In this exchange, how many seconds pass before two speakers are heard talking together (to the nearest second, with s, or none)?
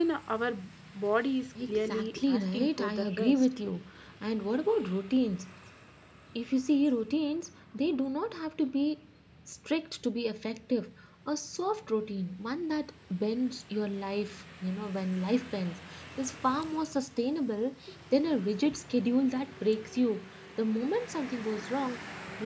2 s